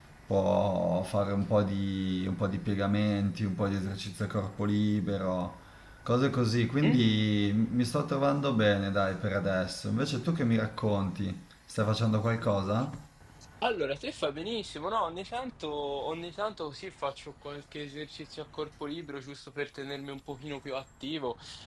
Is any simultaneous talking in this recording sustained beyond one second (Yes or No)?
No